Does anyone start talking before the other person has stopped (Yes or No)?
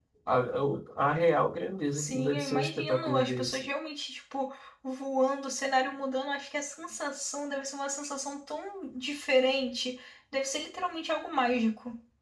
Yes